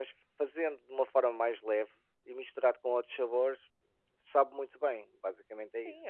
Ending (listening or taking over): taking over